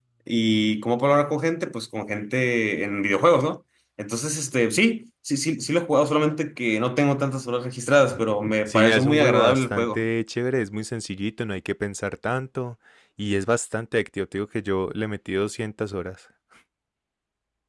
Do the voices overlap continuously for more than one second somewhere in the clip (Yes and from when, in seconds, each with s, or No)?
Yes, from 8.7 s